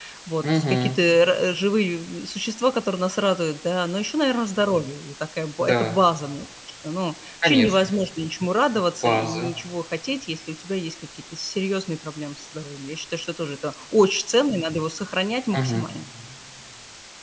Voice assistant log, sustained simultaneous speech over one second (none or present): none